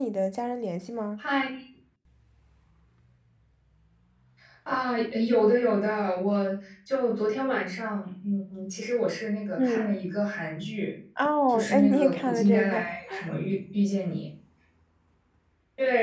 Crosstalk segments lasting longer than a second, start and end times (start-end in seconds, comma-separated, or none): 11.5-12.8